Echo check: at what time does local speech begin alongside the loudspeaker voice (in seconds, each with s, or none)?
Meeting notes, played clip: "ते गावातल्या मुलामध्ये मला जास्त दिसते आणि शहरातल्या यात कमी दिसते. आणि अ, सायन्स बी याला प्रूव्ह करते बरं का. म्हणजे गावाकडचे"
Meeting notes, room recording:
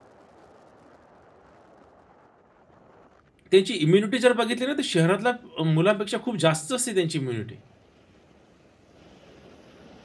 3.5 s